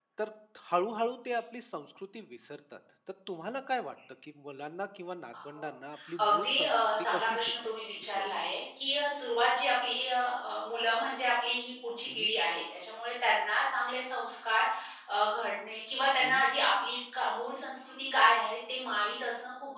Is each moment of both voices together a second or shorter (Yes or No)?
No